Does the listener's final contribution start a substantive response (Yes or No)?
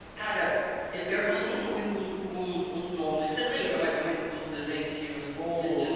Yes